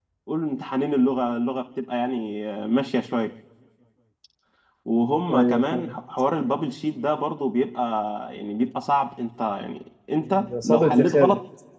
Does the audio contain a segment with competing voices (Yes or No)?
Yes